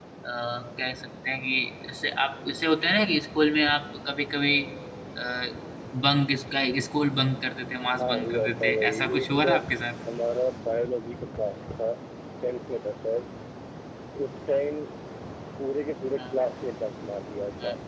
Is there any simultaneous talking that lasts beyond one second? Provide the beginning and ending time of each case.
8.0-9.6

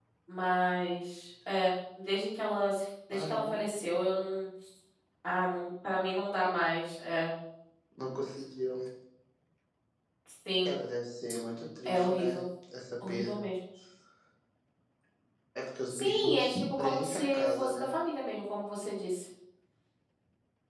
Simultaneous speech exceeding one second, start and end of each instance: 15.9-17.9

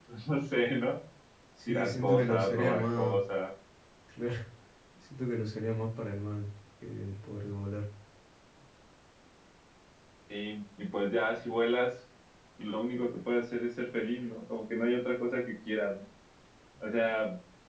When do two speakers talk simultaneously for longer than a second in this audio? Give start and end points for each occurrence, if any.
1.7-3.2

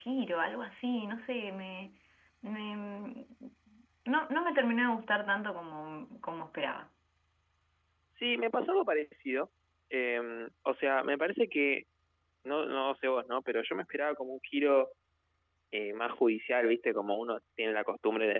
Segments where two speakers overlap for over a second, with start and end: none

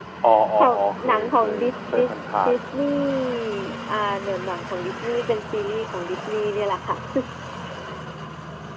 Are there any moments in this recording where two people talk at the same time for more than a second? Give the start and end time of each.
0.6-2.1

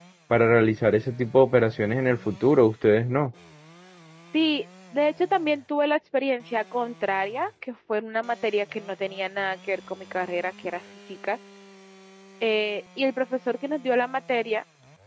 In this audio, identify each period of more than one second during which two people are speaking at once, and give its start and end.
none

